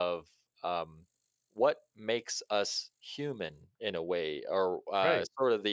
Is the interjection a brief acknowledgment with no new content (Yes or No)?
Yes